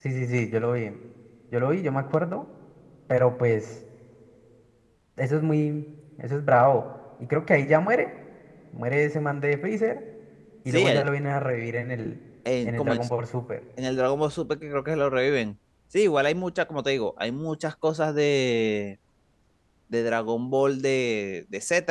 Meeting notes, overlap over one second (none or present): none